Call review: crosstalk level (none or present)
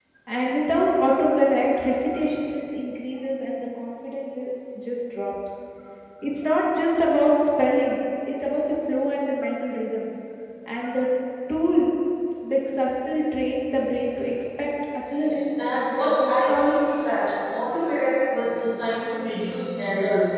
present